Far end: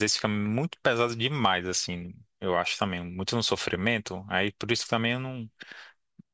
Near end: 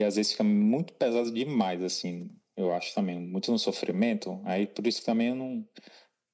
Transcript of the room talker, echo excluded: none

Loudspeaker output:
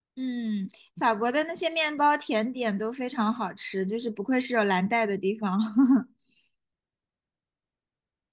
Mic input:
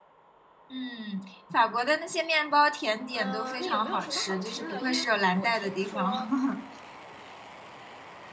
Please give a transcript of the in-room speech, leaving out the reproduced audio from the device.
嗯、那有没有什么好吃的？因为我听说，

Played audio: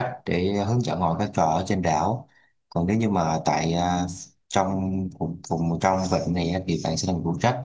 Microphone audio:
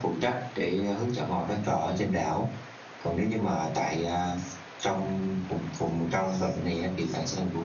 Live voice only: none

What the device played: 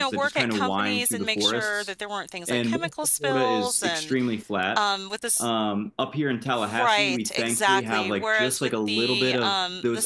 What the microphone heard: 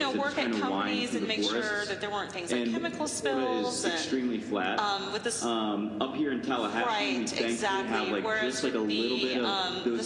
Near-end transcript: none

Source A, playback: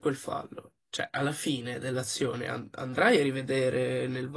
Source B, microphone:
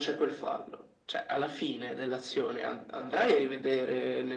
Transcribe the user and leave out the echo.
none

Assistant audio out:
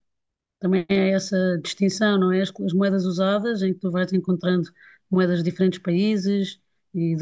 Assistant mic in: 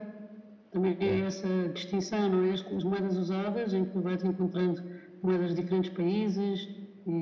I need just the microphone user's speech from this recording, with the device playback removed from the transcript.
claro,

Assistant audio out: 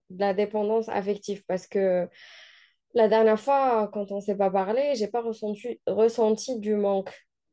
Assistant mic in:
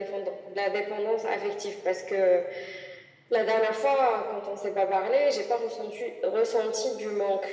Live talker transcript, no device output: none

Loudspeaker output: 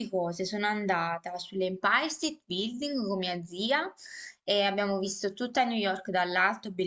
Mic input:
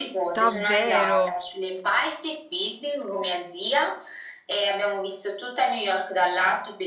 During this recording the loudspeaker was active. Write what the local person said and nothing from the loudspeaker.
Davvero?

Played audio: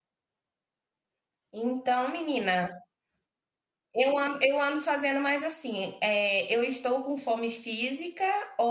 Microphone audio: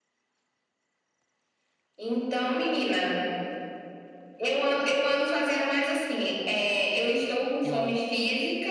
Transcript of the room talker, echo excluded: É.

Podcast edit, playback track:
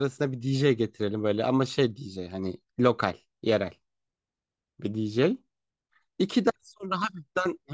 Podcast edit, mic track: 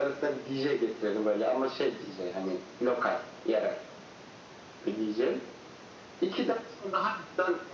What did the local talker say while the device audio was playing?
none

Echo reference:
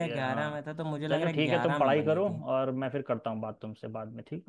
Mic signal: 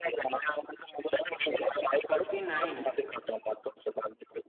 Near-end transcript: फोर्टी नाइन है

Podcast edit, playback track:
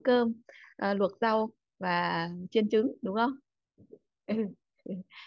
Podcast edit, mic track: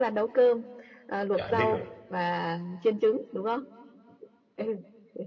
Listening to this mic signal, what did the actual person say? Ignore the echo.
dạ em biết rồi

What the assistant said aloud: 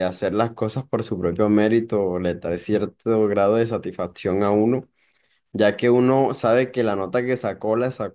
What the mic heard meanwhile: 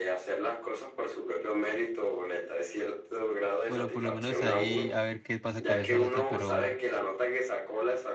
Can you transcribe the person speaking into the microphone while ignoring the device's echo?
Bueno, por lo menos ahí a ver qué pasa con esa nota, pero

